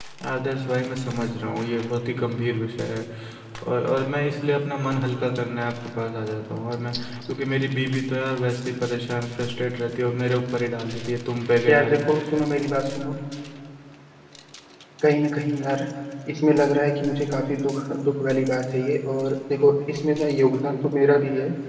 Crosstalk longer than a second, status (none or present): none